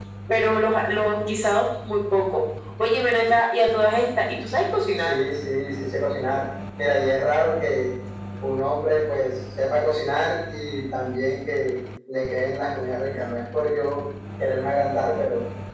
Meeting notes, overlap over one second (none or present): none